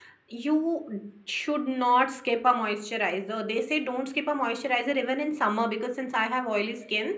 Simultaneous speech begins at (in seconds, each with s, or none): none